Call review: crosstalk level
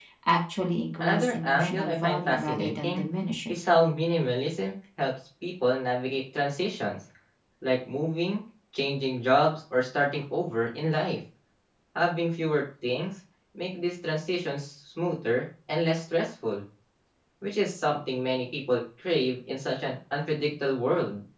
present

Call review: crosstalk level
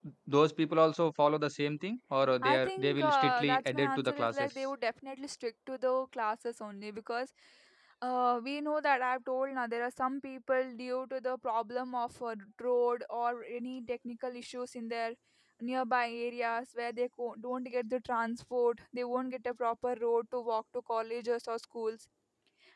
present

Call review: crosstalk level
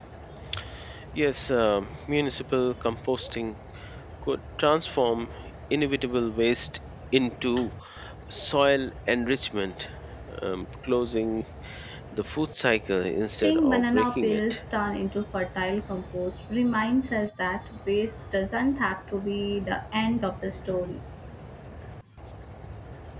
present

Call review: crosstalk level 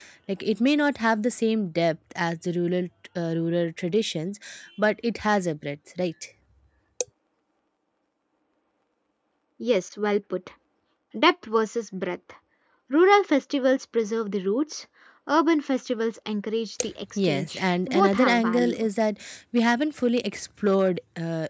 present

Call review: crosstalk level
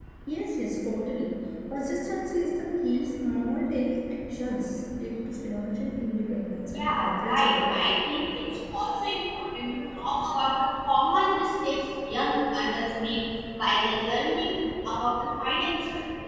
present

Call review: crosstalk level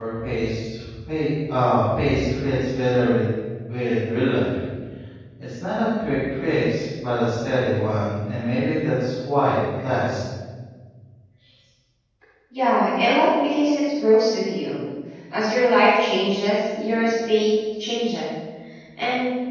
none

